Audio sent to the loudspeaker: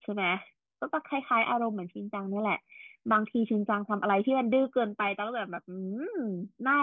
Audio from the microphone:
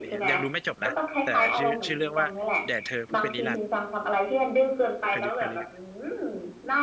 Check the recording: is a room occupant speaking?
Yes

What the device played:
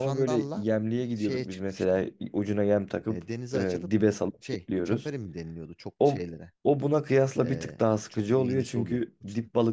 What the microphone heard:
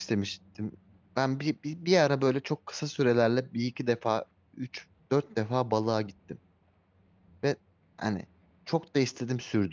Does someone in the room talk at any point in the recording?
Yes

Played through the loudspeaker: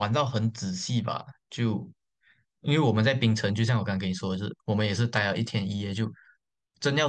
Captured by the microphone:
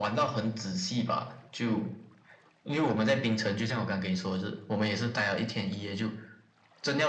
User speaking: No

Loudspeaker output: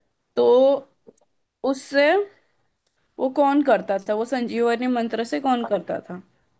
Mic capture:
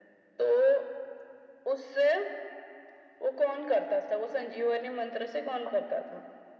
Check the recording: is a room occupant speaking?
No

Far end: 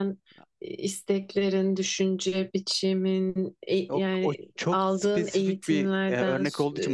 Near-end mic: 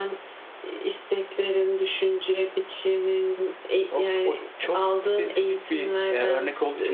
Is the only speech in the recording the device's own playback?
Yes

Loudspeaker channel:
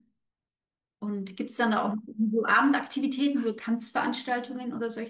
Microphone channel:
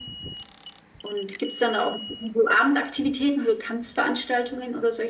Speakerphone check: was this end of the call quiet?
Yes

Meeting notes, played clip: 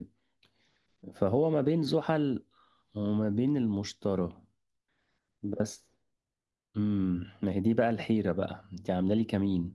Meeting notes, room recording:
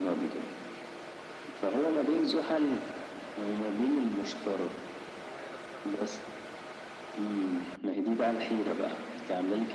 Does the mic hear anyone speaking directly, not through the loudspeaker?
No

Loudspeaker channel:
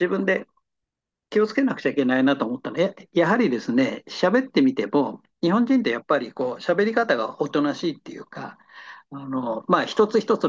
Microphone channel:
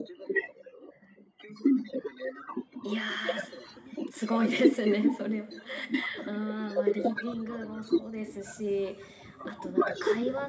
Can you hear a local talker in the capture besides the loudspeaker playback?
Yes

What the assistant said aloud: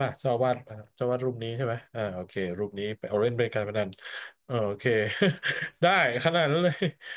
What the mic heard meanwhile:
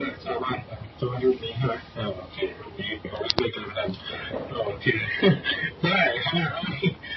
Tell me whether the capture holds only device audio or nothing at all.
Yes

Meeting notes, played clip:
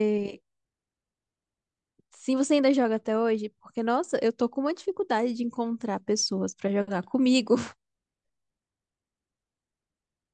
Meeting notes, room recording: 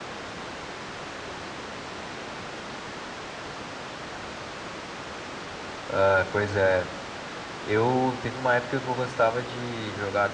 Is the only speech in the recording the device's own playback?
No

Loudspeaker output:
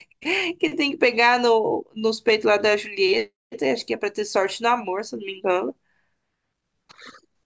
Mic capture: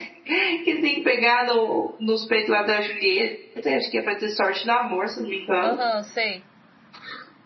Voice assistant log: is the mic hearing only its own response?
No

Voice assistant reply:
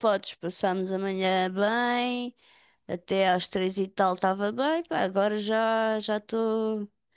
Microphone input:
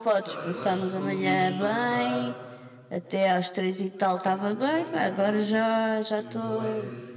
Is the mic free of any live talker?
No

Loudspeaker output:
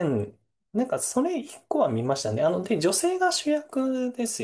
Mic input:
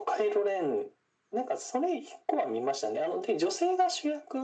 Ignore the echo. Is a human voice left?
No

